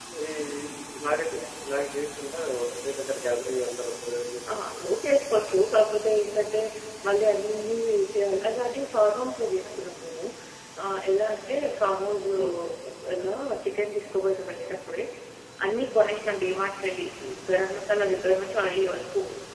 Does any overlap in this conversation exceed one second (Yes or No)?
No